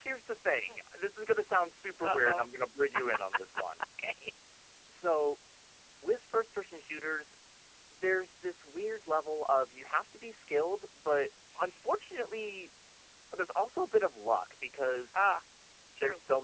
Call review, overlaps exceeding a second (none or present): none